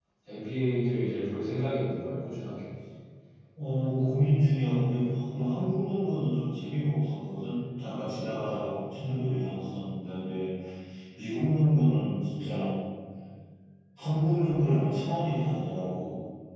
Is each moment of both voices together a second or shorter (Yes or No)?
Yes